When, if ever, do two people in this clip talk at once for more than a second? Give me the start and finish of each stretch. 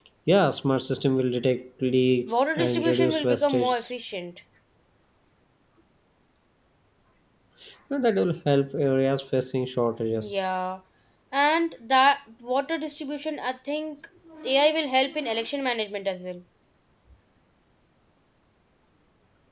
2.2-3.9

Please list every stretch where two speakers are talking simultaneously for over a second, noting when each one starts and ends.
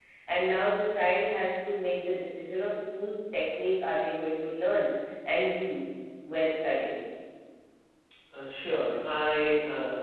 none

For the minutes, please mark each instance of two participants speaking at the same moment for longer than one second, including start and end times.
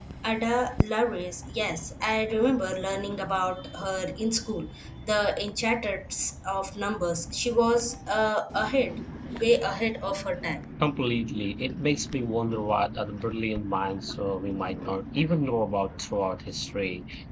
none

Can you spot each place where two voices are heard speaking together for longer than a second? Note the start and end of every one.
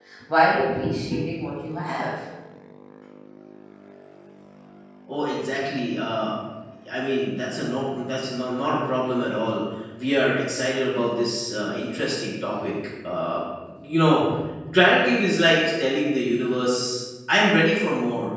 none

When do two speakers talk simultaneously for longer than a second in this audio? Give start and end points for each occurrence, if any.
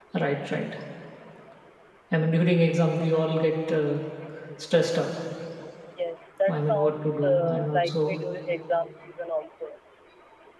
6.5-8.1

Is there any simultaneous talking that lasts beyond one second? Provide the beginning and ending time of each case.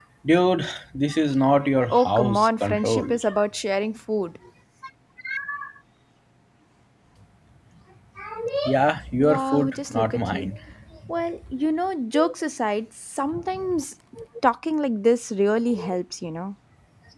1.9-3.1, 9.2-10.5

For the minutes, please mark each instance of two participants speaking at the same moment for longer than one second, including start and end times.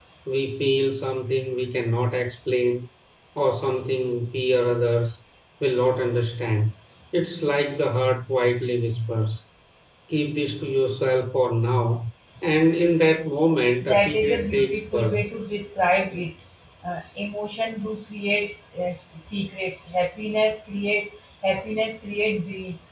13.8-15.2

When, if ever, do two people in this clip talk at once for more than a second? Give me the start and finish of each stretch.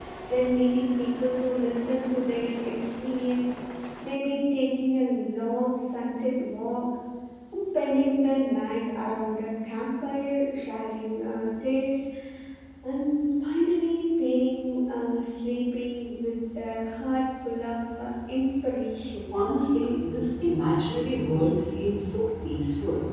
none

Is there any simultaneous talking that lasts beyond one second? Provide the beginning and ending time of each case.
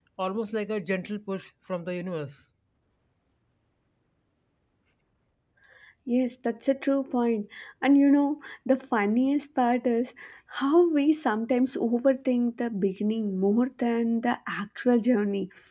none

